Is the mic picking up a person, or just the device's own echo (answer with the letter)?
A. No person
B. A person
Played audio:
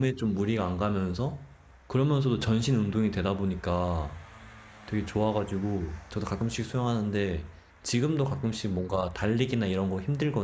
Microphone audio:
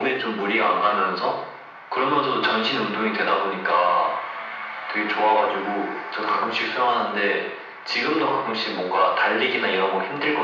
A